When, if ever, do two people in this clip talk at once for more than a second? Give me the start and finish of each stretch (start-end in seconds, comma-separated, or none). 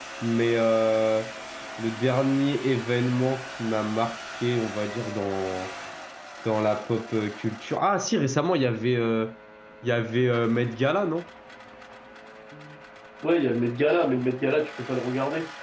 none